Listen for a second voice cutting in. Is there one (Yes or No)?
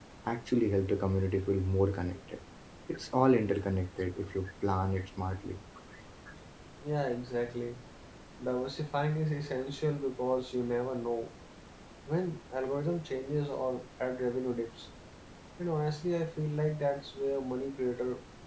No